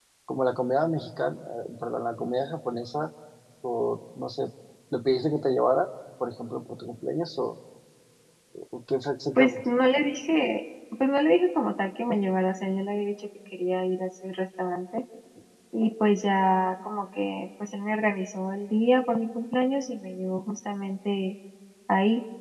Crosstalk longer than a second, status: none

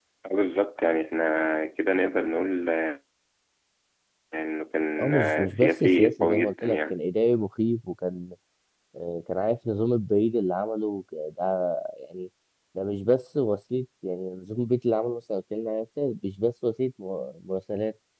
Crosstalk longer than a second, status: present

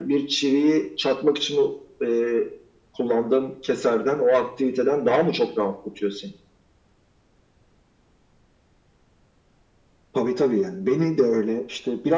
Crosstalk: none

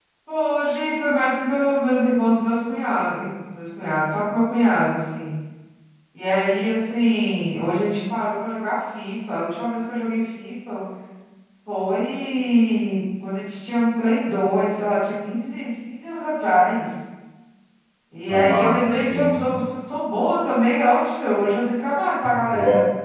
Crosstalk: present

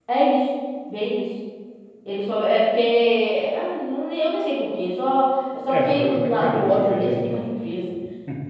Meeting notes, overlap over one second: present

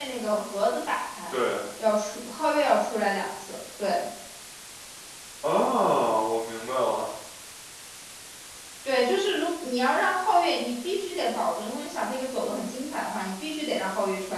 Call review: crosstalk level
none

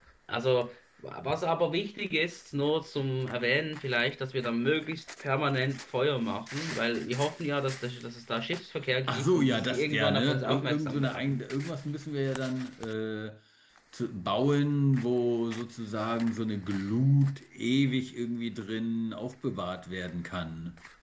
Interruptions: present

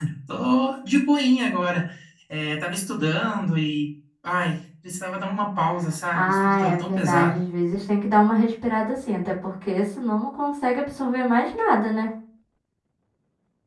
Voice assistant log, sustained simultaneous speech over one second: present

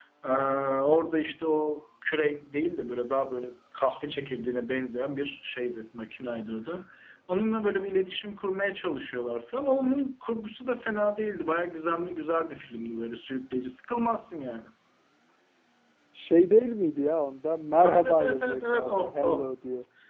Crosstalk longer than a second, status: present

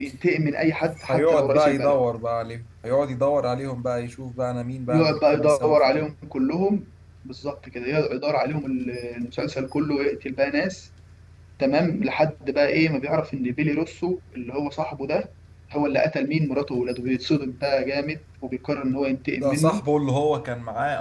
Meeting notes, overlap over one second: present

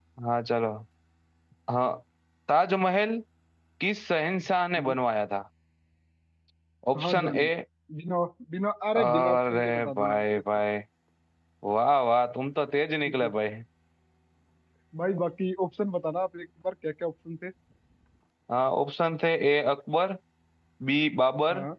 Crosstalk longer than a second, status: present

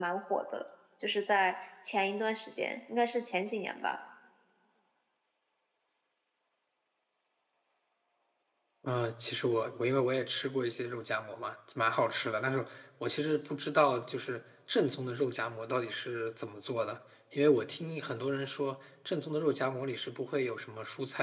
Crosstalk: none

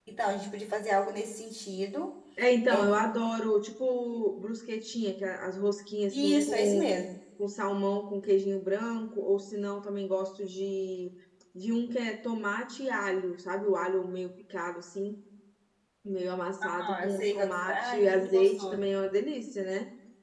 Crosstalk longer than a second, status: present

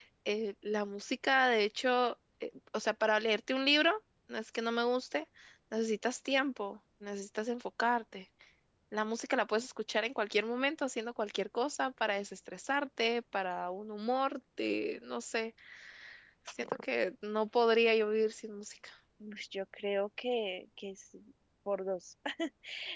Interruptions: none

